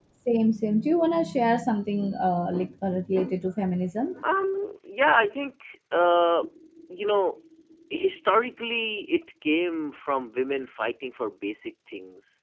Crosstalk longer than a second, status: none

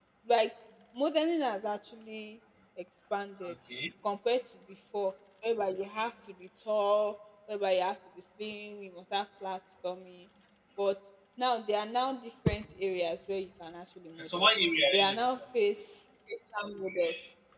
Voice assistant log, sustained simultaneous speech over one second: none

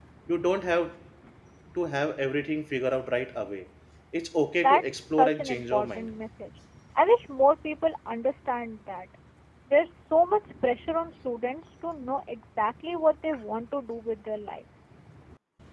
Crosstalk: present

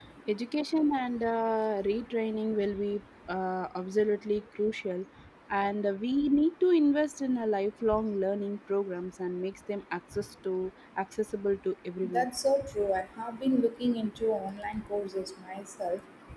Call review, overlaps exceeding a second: none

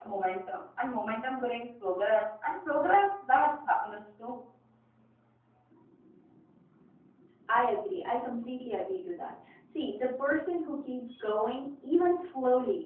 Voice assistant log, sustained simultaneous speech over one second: none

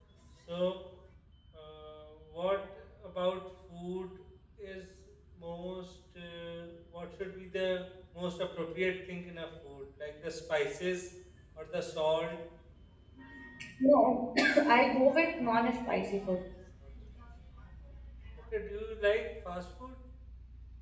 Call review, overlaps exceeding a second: none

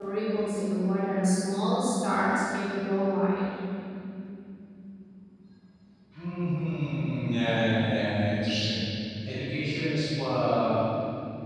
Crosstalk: none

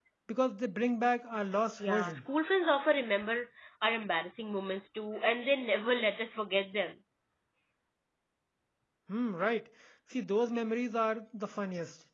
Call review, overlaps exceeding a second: none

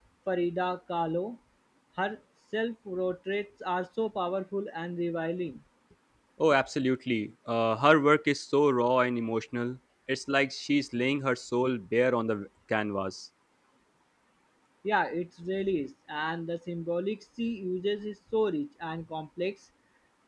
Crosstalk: none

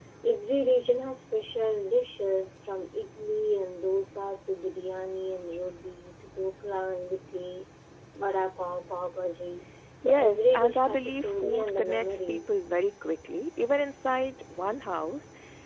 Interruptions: present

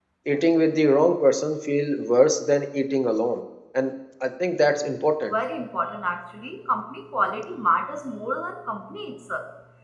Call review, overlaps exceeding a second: none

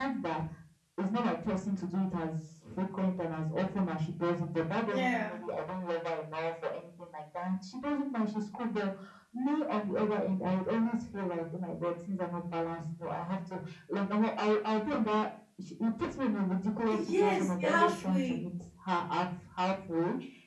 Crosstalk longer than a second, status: present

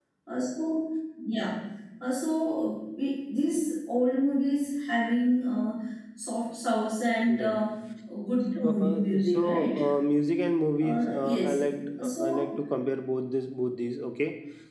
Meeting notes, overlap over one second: present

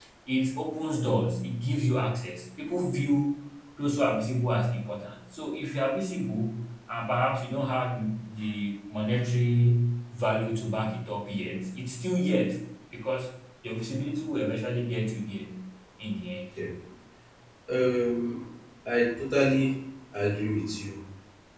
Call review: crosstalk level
none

